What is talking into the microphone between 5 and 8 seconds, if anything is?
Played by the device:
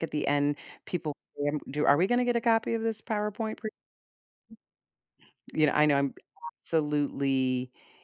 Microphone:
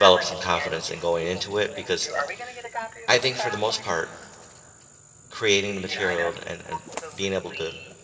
both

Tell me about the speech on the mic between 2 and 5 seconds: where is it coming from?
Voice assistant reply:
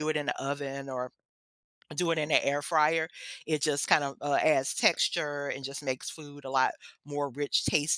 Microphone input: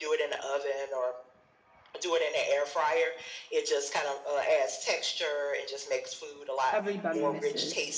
echo only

